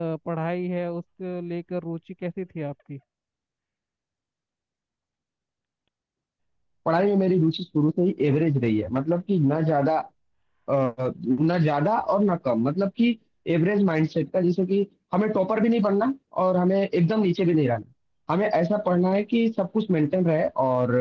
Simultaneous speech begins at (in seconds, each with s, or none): none